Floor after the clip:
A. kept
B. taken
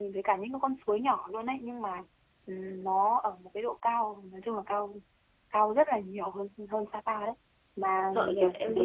B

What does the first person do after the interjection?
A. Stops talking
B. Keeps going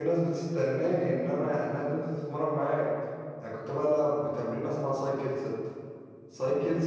B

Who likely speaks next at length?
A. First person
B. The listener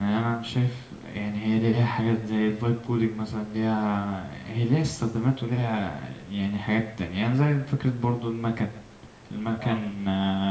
A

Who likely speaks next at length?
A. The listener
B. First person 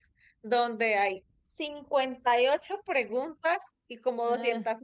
B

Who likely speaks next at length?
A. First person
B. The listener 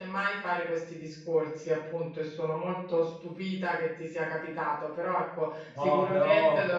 A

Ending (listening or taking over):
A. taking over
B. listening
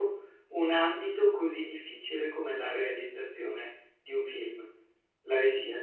A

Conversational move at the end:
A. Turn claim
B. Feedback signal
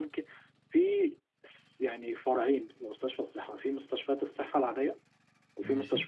B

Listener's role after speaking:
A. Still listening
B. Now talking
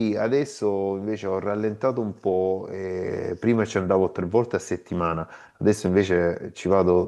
A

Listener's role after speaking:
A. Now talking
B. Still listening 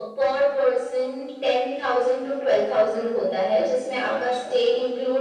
B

